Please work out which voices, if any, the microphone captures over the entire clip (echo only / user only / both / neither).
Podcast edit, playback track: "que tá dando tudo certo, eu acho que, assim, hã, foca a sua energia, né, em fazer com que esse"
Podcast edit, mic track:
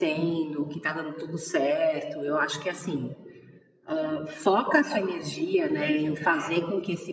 both